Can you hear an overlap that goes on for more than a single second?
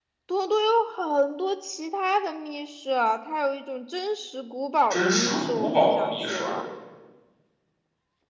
Yes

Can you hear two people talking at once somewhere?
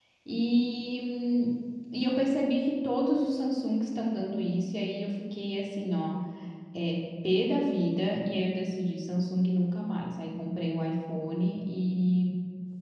No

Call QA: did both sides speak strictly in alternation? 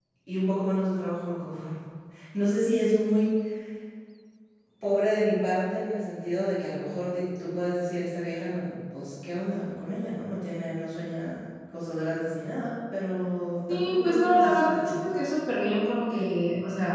No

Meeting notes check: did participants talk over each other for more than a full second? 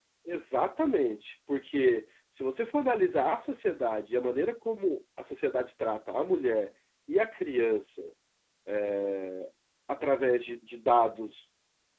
No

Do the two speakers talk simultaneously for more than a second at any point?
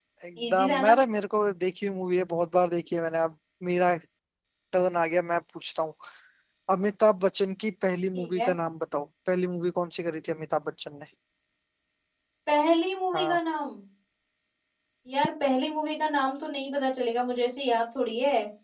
No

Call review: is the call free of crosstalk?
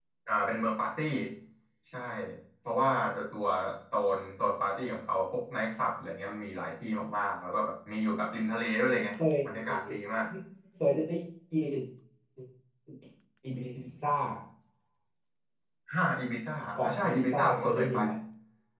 No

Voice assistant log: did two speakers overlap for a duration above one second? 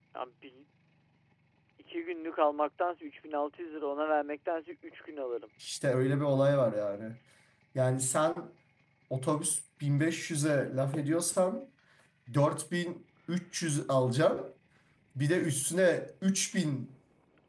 No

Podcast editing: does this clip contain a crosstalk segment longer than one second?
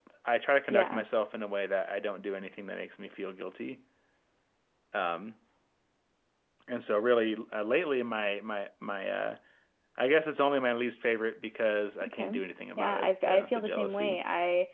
Yes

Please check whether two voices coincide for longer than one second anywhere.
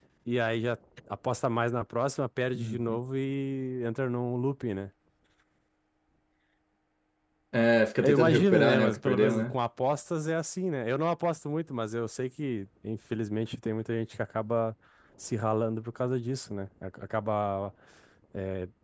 Yes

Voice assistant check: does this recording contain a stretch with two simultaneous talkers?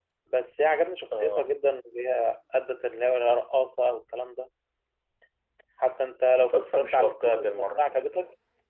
Yes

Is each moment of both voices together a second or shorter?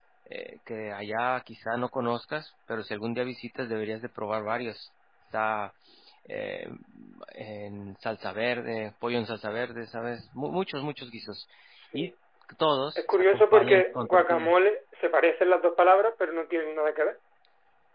No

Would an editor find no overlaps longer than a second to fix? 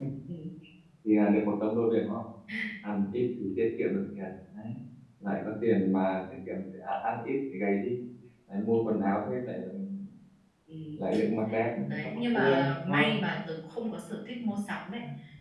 No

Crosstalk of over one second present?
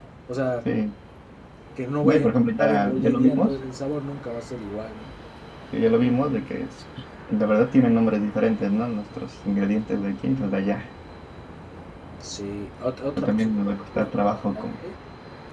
Yes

